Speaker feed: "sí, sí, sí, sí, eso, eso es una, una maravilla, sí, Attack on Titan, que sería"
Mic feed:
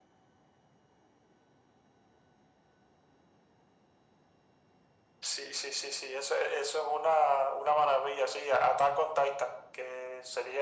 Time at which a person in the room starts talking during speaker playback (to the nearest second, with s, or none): none